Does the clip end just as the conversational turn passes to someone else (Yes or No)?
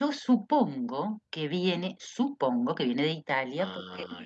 No